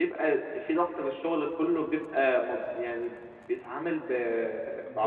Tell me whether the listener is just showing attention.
No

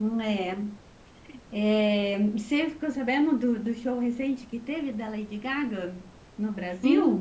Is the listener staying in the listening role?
No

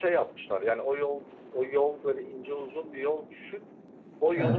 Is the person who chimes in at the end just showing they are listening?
Yes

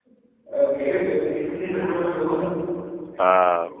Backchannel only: No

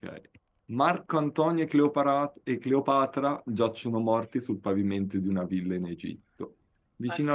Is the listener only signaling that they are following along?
Yes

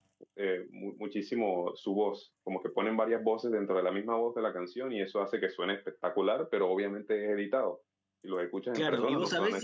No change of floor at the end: No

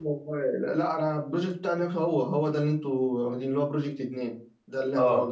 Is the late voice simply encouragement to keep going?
No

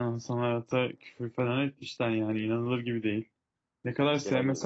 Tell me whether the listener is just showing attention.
Yes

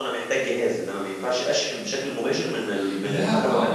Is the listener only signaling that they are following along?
No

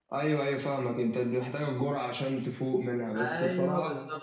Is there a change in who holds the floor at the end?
Yes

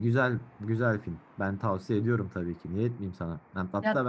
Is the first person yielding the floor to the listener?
No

